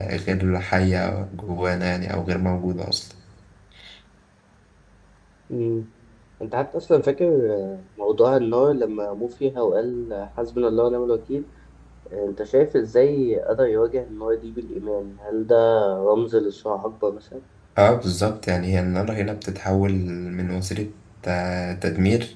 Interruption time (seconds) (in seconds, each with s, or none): none